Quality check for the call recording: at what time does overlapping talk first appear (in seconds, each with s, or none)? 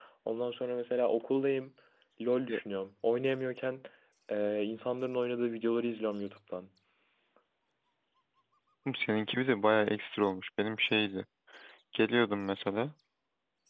none